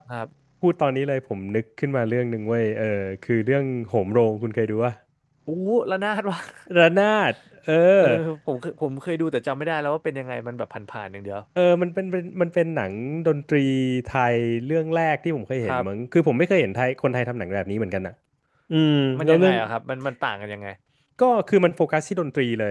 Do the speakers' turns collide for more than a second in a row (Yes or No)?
No